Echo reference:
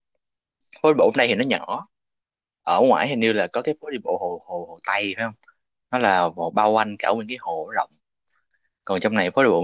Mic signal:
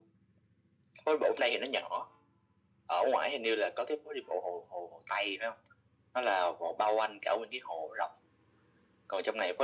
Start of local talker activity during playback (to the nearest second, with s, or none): none